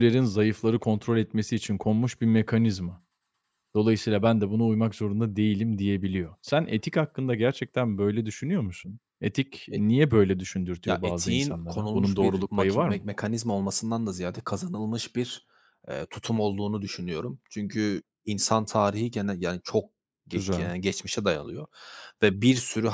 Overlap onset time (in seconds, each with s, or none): 10.8 s